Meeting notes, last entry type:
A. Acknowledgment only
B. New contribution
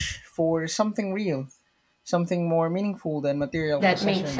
B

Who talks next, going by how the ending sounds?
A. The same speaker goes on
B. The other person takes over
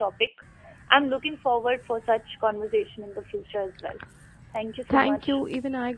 B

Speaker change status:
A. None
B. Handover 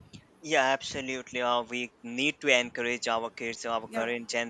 A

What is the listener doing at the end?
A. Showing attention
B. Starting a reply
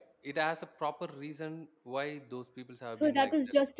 B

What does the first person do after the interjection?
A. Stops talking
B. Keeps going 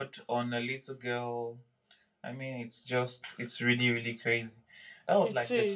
B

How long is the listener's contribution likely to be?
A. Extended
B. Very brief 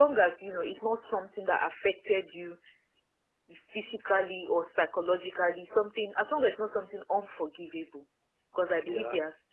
B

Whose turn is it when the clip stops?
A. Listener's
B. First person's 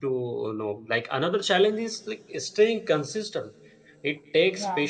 B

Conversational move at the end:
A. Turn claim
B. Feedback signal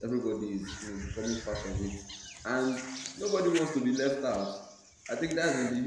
B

